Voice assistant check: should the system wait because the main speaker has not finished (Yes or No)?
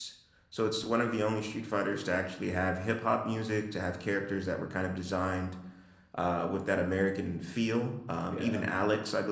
Yes